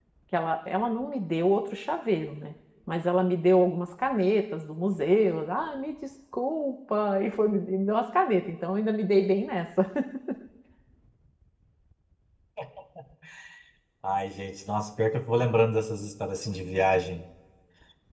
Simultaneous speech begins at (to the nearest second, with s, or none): none